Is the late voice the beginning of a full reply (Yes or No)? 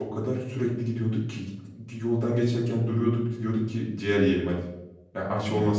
No